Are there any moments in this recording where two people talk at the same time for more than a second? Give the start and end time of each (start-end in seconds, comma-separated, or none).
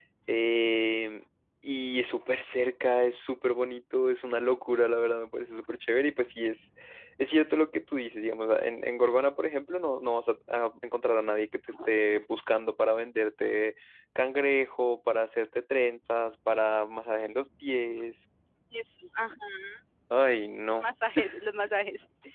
none